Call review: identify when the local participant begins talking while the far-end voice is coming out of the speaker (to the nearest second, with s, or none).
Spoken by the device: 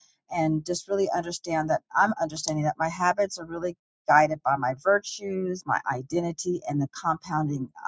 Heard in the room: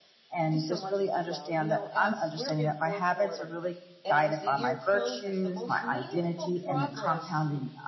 0 s